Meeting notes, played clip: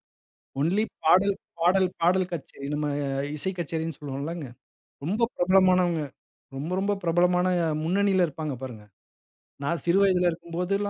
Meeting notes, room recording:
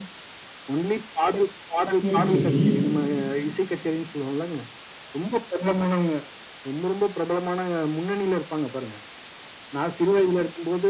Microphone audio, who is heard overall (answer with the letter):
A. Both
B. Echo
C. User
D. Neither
A